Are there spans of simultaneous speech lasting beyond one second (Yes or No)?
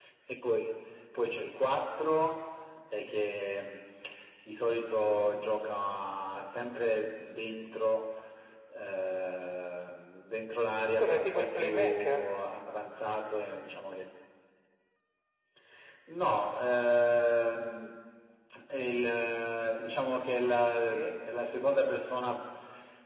Yes